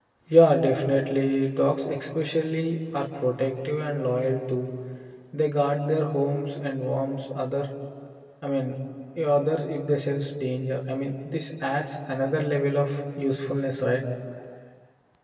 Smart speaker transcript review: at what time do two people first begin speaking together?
none

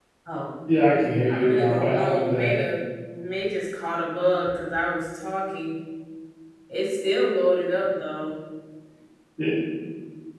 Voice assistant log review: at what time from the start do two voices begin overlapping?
1.3 s

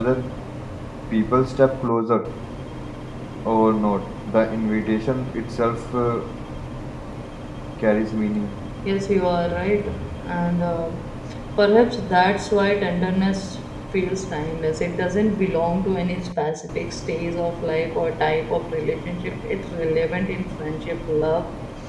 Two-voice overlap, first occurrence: none

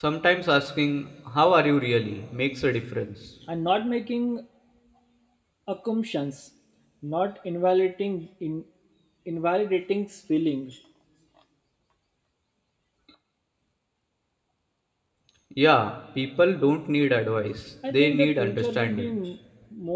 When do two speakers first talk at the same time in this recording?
17.8 s

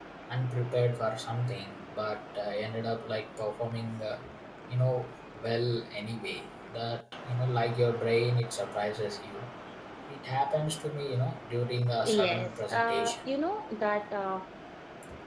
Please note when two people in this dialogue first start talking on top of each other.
12.0 s

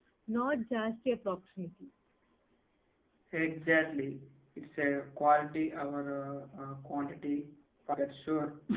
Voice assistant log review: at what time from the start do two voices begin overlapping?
none

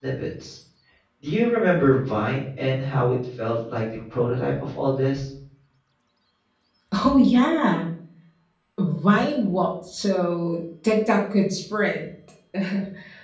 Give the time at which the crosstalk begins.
none

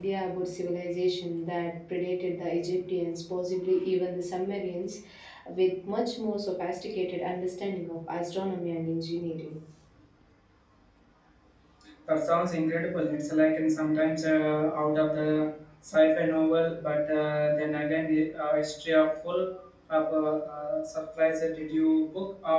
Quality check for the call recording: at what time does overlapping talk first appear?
none

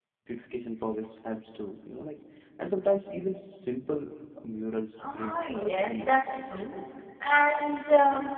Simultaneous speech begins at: 5.0 s

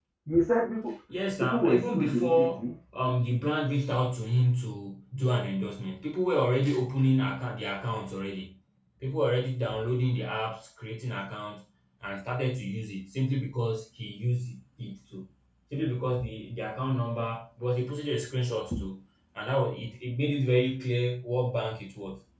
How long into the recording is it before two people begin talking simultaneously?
1.4 s

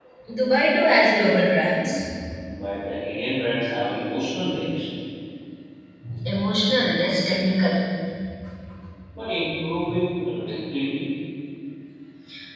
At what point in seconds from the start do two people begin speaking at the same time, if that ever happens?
none

